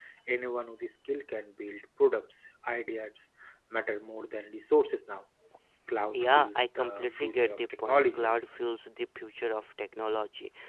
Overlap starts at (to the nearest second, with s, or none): 6 s